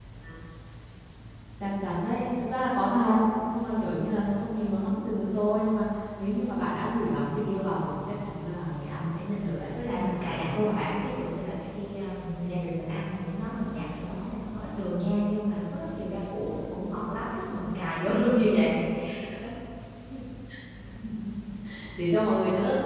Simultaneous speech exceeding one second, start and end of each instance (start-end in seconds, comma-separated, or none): 9.8-11.1